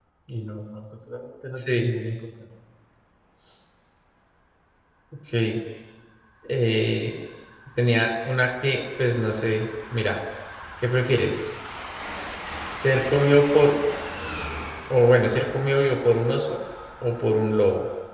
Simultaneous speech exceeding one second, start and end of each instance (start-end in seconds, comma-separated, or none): none